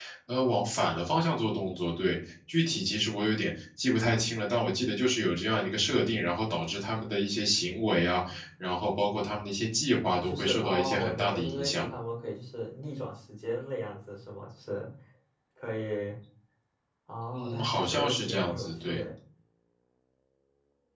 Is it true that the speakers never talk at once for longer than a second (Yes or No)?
No